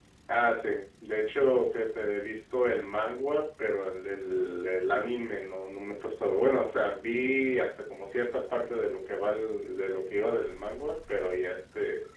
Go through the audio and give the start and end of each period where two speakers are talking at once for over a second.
none

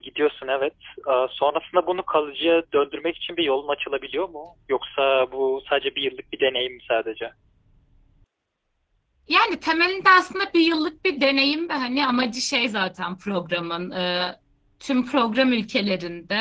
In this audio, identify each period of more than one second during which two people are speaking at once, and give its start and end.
none

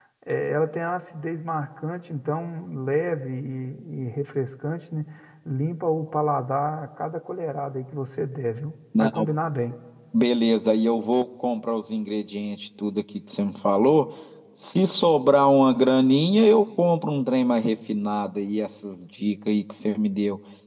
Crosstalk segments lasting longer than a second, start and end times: none

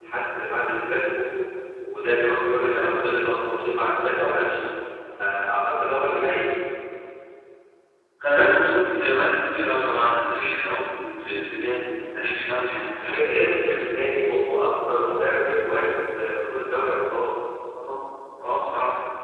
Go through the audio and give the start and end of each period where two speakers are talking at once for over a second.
none

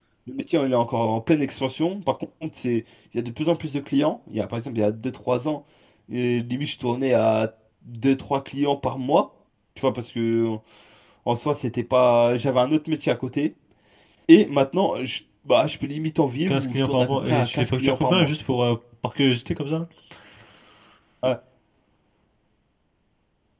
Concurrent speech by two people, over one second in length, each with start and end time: 16.4-18.3

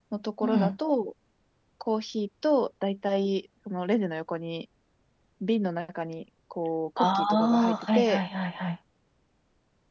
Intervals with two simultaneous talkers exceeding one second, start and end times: 7.0-8.2

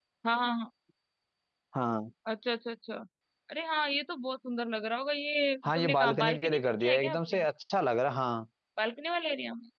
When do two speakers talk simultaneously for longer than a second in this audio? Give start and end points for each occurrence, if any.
5.7-7.5

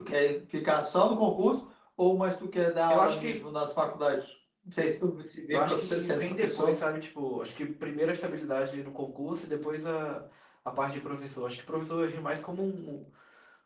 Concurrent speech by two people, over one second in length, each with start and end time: 5.5-6.8

